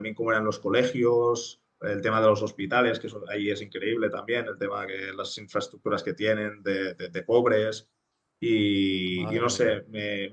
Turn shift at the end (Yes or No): No